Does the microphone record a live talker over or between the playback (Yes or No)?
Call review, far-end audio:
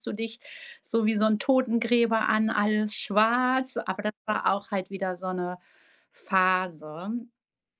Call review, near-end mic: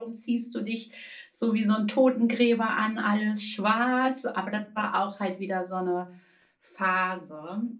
No